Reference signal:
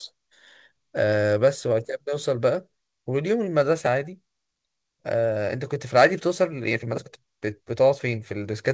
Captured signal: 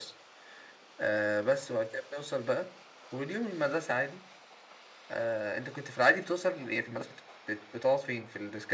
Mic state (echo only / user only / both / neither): echo only